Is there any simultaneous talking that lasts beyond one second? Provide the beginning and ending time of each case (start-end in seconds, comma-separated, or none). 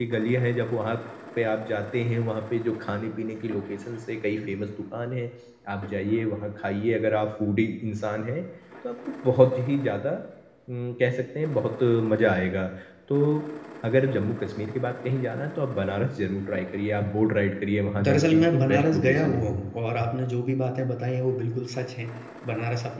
18.0-19.6